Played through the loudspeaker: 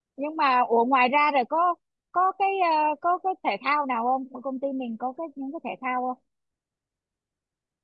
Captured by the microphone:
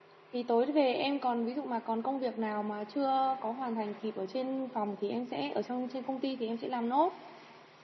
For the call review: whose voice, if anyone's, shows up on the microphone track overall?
user only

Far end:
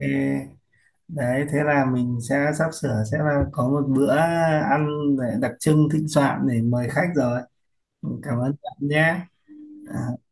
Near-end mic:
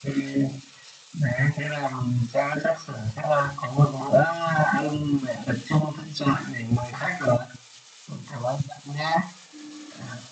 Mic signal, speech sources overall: echo only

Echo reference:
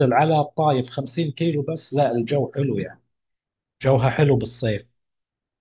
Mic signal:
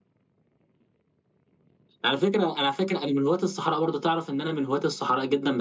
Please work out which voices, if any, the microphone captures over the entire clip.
user only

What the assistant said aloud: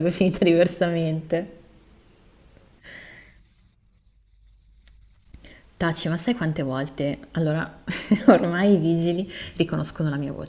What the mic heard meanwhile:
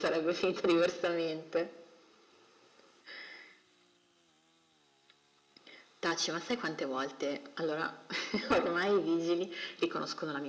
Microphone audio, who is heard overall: echo only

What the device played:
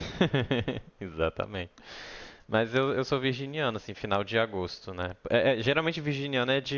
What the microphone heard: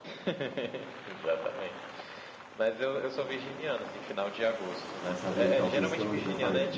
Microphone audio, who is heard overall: both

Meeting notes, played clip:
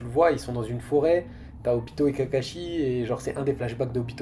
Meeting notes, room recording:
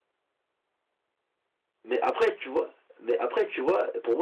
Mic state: user only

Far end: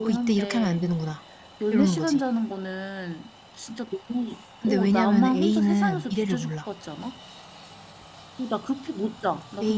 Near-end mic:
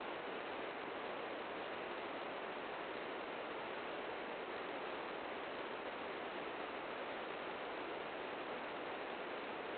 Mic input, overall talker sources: neither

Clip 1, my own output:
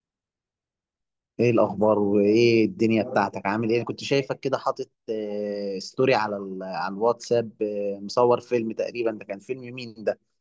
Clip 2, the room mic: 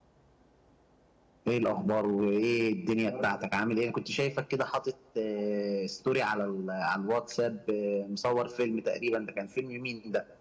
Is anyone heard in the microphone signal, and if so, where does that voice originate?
echo only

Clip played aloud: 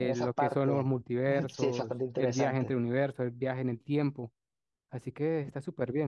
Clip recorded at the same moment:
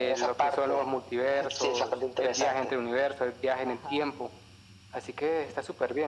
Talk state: both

